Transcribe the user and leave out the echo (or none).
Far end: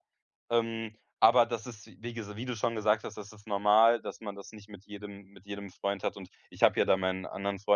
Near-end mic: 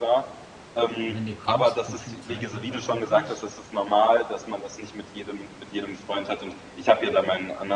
wenn du kommst, so viel Zeit hat er auch nicht.